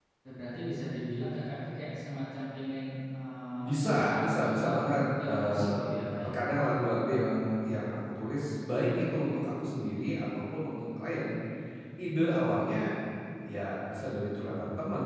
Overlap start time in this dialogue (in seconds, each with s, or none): 3.6 s